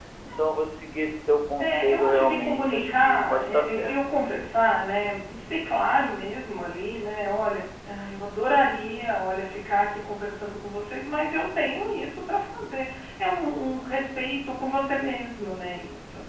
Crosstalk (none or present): present